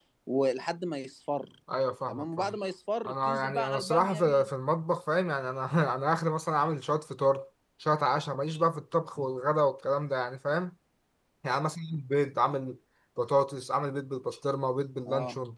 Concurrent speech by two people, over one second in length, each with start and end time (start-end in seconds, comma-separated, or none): 3.0-4.5